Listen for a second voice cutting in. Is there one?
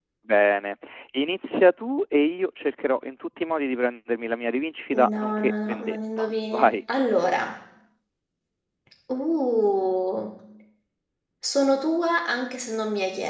Yes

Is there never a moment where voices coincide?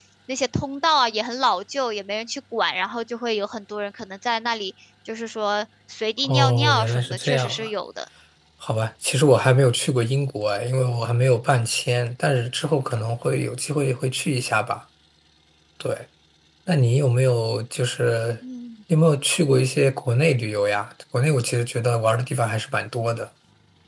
No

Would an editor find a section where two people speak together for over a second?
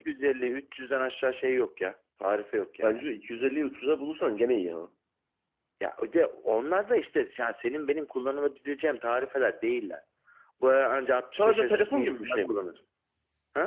Yes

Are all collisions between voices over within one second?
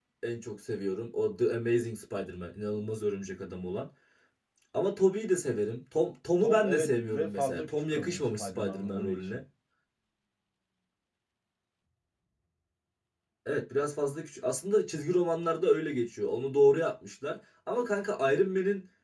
No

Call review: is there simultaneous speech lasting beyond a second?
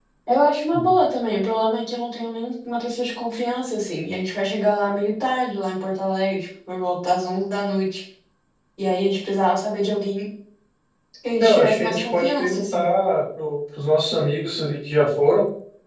Yes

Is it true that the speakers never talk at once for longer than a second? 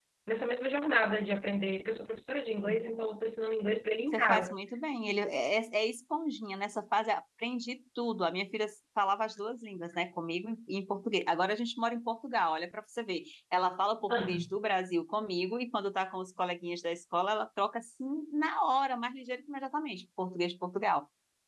Yes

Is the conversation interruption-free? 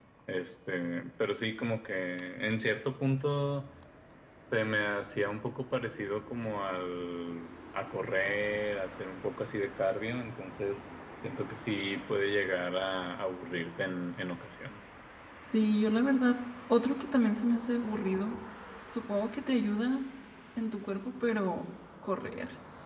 Yes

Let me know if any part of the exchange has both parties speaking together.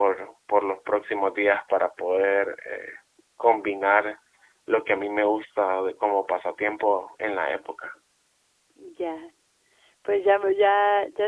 No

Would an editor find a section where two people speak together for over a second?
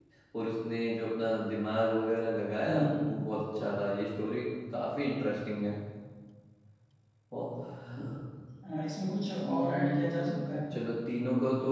Yes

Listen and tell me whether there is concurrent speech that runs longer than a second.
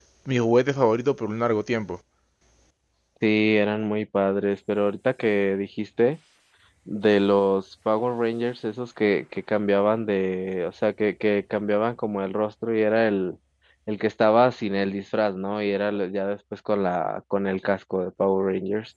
No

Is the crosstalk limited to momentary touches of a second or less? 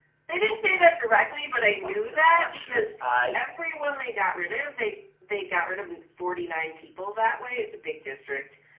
No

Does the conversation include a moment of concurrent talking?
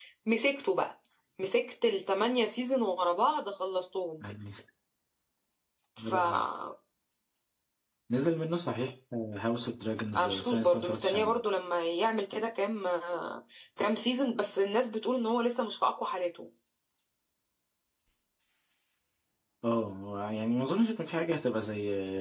Yes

